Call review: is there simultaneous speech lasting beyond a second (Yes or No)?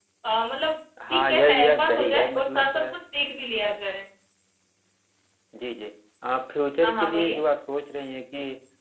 Yes